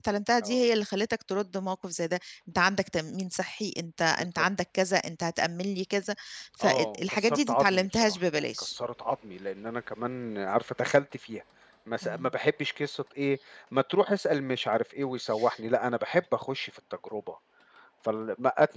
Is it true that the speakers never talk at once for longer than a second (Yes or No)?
No